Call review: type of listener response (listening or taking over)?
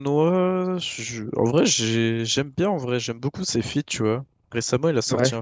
listening